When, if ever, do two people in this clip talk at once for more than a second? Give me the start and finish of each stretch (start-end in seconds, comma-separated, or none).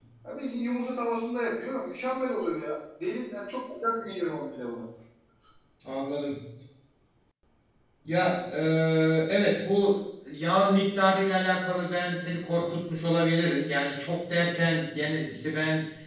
none